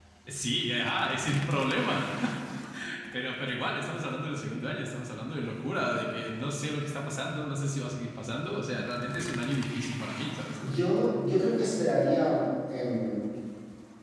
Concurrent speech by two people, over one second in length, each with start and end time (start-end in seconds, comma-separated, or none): none